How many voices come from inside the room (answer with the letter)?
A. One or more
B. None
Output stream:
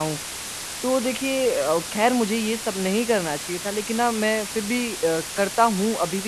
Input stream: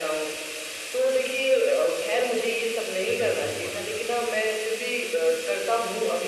A